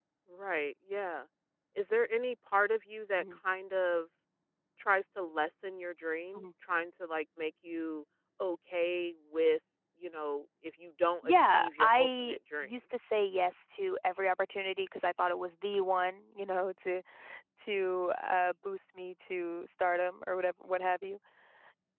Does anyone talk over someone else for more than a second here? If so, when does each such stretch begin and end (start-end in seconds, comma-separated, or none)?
11.2-12.7